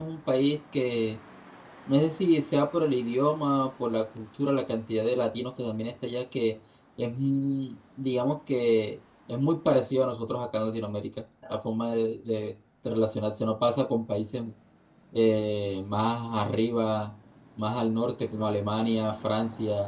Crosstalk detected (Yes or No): No